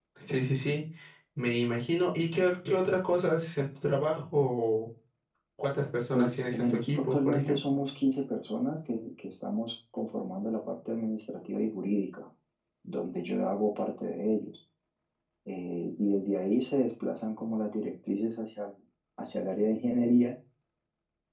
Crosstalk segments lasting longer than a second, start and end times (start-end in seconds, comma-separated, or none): 6.1-7.6